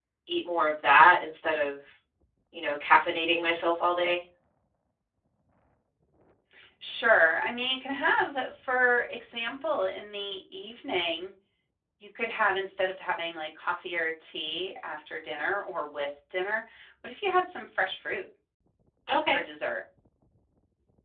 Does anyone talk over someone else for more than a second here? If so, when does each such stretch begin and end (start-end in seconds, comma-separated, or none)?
none